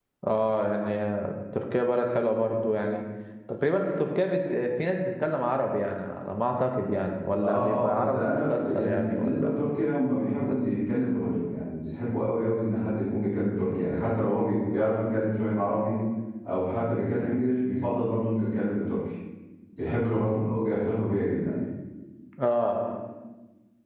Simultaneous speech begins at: 7 s

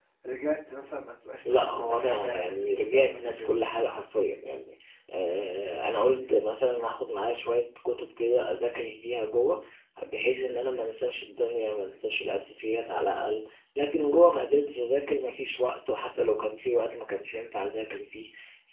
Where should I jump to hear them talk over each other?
1 s

